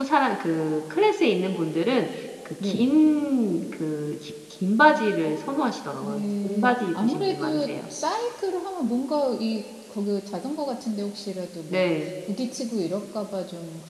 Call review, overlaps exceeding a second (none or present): present